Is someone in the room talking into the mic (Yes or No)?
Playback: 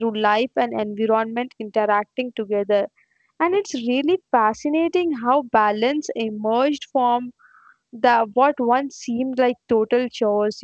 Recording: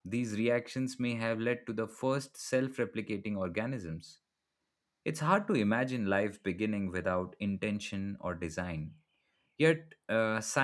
Yes